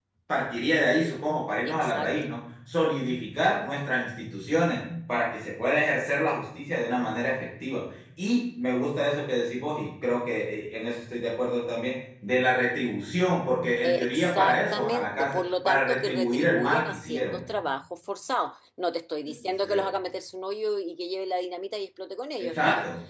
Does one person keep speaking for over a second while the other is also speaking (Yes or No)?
Yes